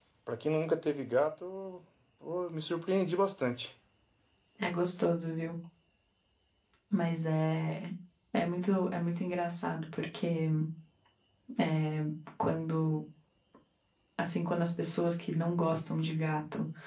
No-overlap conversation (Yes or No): Yes